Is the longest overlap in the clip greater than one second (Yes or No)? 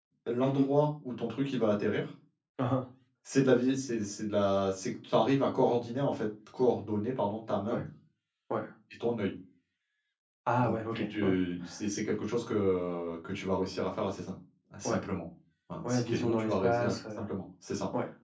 Yes